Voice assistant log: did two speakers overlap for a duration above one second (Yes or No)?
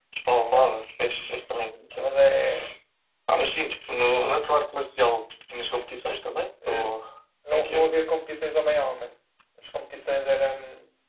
No